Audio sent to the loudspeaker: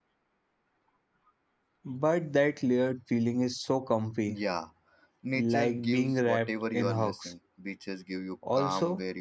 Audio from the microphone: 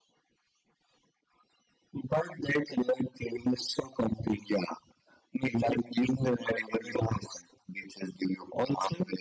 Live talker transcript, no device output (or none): none